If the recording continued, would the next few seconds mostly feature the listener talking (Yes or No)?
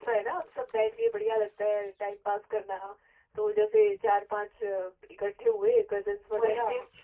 Yes